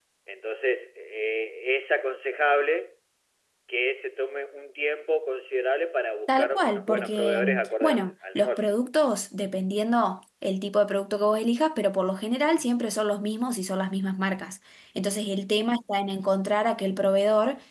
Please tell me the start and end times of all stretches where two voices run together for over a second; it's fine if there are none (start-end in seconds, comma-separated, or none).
6.3-8.8